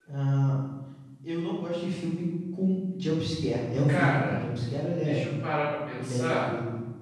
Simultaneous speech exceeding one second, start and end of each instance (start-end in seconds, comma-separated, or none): none